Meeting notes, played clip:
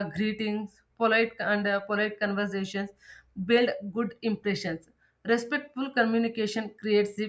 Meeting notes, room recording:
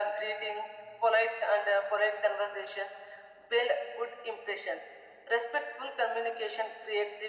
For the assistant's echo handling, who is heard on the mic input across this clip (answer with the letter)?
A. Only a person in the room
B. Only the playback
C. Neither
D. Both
B